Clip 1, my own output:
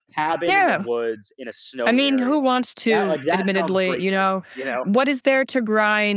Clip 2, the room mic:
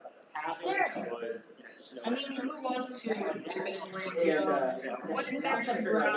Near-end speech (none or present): present